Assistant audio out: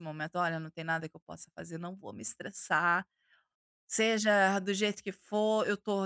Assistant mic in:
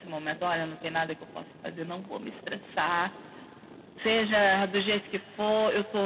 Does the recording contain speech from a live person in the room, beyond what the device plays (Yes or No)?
No